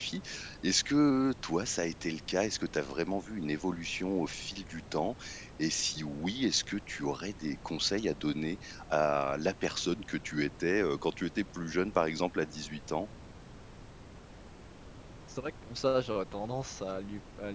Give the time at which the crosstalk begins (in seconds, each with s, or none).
none